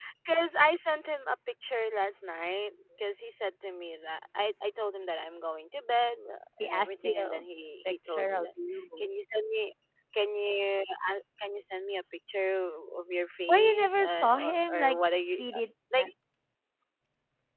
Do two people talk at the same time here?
Yes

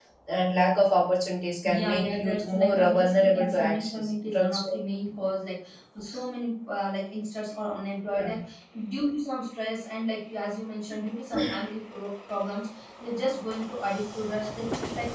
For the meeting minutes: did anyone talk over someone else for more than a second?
Yes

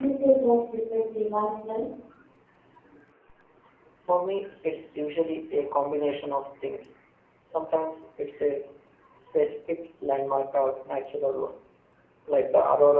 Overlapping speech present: No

